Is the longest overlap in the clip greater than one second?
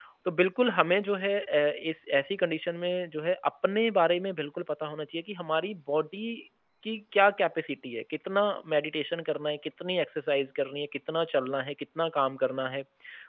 No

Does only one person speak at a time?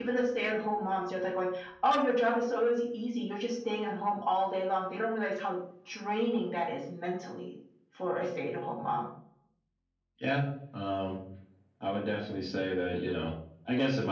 Yes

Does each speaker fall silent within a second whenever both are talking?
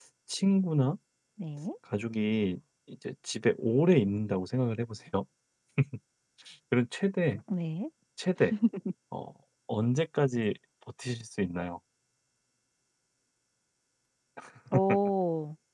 Yes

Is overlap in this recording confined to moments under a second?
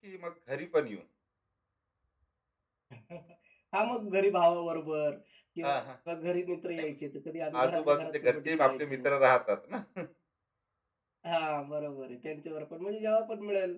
No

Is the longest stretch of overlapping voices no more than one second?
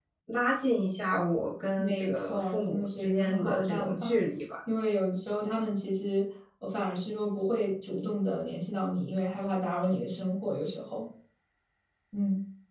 No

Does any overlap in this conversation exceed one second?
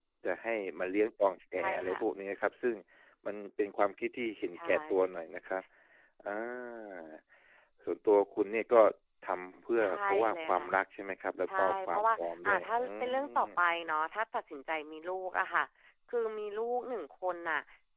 Yes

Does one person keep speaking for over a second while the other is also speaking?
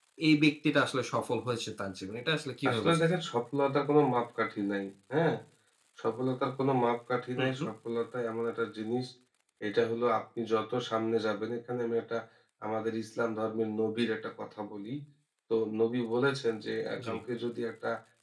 No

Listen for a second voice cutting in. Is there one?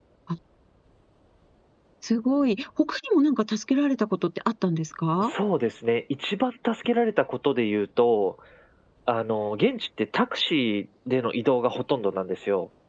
No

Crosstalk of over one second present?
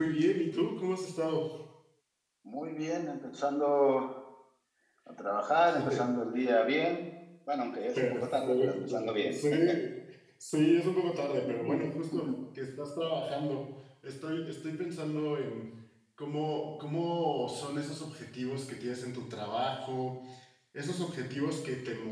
Yes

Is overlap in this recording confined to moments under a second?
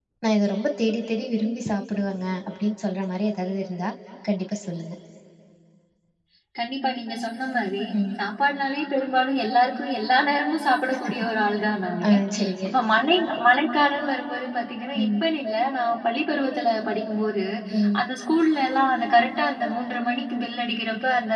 Yes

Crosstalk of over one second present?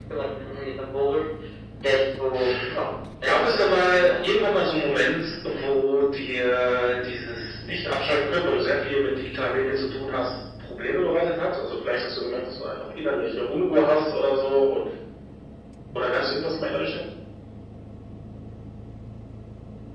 Yes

